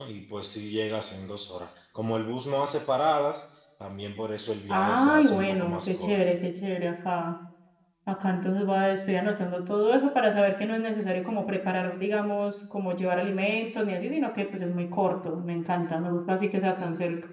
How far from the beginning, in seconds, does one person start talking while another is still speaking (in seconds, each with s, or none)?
4.7 s